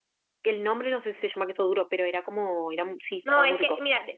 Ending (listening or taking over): taking over